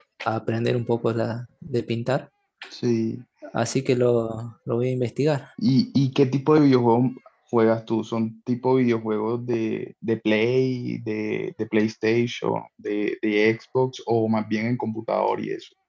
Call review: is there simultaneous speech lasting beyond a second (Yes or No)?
No